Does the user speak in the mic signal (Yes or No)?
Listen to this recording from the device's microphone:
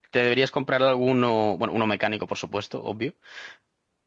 Yes